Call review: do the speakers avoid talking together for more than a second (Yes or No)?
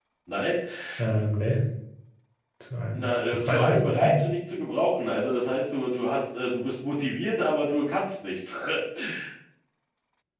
No